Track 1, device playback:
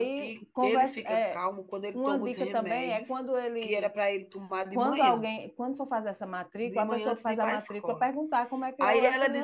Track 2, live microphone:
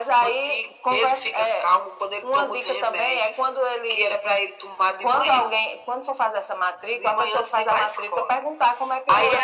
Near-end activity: none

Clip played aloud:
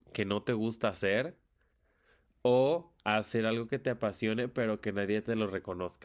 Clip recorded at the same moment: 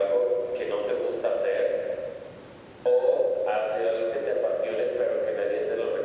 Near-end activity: none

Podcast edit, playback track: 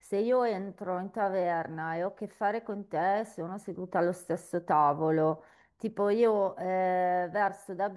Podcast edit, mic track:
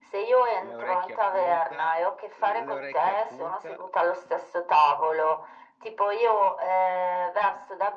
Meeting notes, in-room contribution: present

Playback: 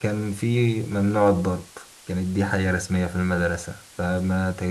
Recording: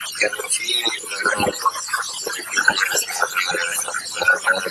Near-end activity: none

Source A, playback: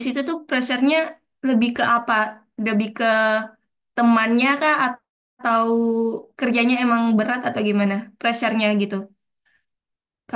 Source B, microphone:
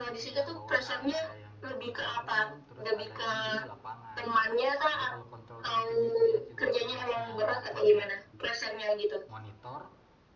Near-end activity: present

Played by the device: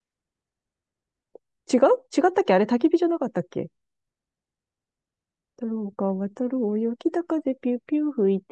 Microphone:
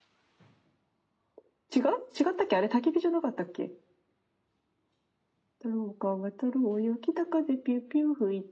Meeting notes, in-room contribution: none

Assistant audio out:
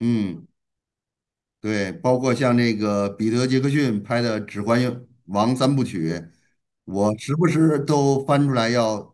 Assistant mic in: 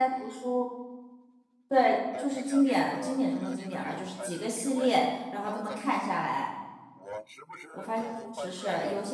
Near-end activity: present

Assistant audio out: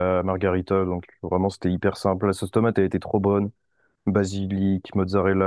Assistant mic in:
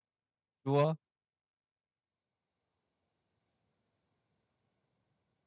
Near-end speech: present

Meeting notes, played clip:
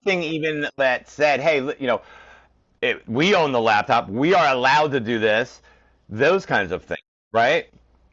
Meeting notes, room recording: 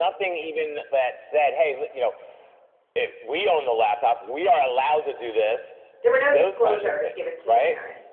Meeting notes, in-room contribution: present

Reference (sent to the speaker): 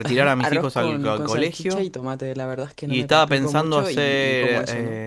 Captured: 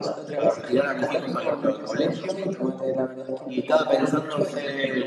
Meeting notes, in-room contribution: none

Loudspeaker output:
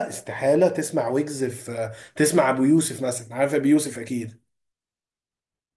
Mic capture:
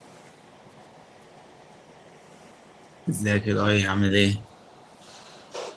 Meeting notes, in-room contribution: present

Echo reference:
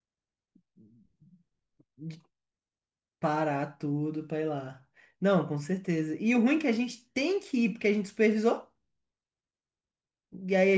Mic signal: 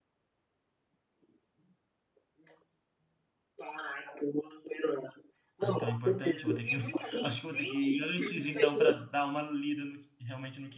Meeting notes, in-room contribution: present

